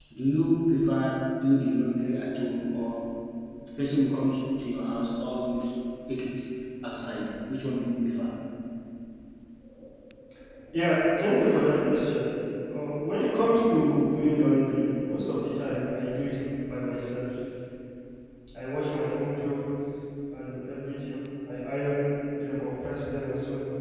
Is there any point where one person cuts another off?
No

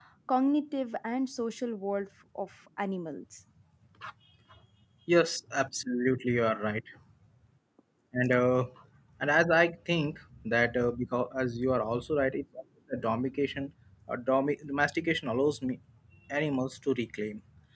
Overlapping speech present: No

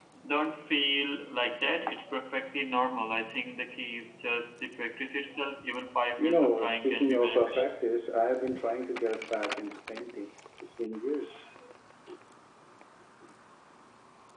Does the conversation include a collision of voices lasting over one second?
Yes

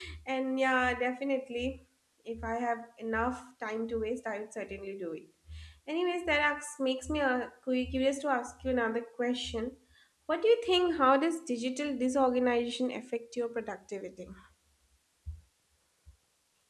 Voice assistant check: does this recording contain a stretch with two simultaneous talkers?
No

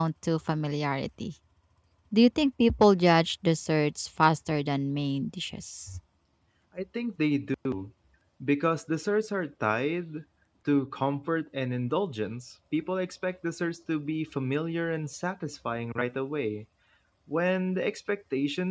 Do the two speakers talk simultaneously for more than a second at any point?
No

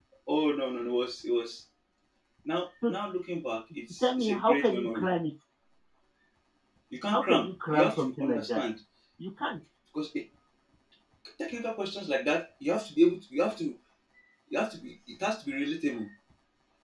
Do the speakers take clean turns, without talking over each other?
No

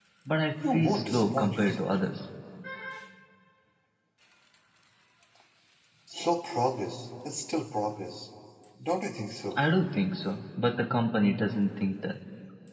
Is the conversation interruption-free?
No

